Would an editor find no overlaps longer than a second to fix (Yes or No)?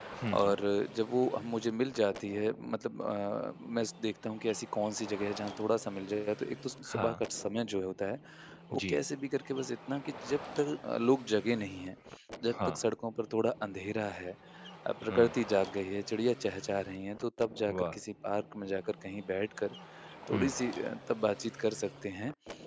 Yes